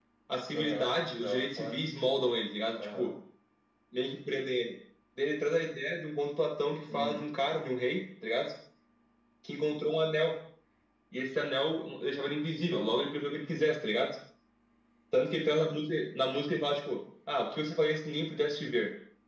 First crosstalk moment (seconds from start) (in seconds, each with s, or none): 0.5 s